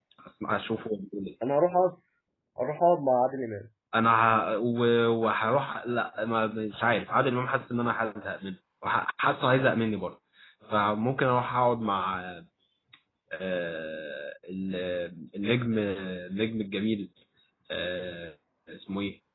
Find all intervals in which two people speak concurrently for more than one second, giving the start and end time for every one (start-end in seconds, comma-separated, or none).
none